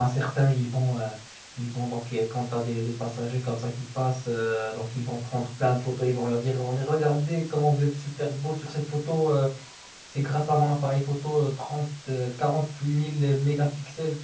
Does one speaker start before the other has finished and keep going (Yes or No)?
No